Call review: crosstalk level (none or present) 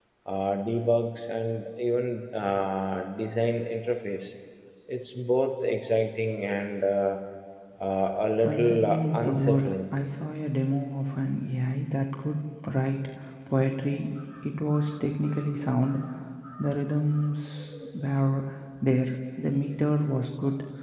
present